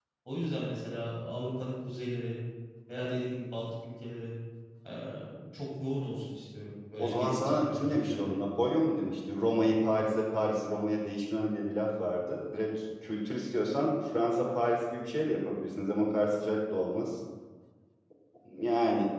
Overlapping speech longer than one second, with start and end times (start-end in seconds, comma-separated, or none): 7.0-8.4